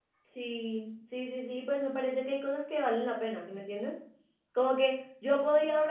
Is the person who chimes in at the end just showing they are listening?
Yes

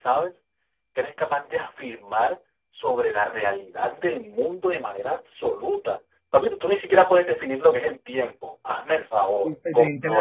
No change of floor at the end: No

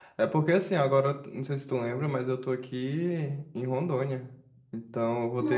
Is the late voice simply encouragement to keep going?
Yes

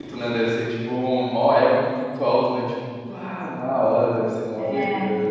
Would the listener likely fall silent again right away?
No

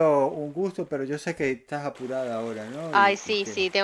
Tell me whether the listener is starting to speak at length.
Yes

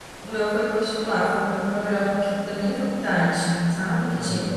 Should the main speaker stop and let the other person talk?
Yes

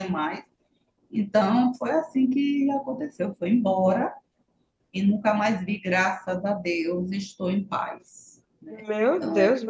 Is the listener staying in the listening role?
No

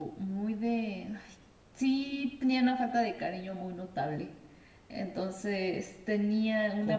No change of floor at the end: Yes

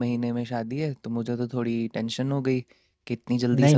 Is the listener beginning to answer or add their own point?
Yes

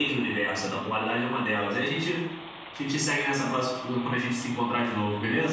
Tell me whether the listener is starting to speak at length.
Yes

